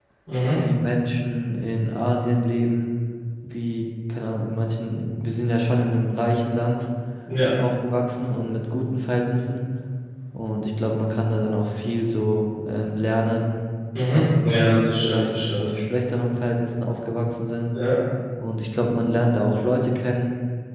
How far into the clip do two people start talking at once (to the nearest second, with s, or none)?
14 s